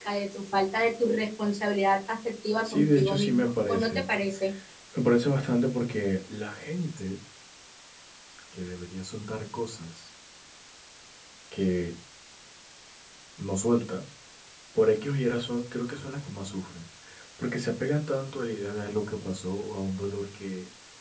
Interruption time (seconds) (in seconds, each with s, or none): 2.6 s